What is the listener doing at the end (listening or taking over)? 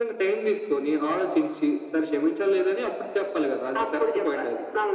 taking over